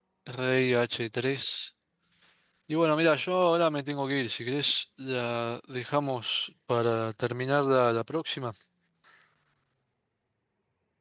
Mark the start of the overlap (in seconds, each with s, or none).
none